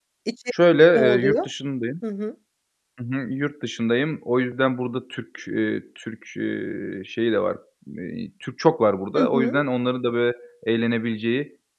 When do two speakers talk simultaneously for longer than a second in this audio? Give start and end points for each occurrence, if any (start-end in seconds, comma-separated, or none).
none